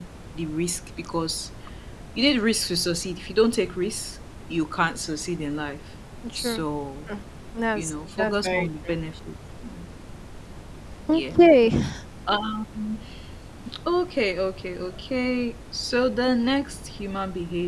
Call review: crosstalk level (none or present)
present